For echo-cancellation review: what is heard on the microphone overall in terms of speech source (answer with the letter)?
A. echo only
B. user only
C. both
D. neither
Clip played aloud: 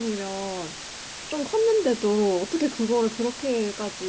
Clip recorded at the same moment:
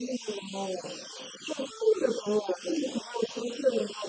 A